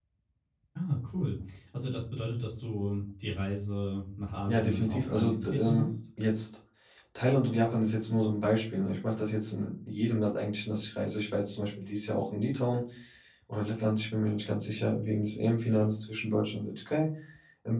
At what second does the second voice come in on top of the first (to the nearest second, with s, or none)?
4 s